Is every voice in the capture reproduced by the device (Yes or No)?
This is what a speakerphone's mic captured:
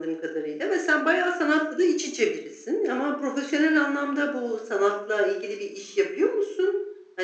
Yes